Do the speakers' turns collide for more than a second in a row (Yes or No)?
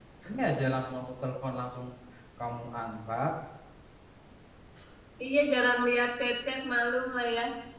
No